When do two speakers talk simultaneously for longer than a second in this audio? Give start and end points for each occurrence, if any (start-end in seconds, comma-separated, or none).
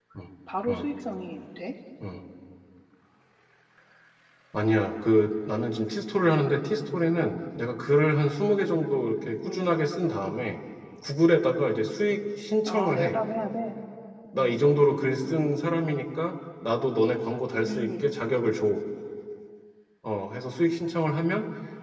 none